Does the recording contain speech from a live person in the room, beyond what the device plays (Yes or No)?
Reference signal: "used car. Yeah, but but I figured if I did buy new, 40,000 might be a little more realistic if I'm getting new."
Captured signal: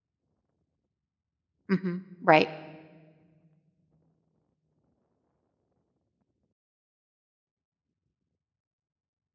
Yes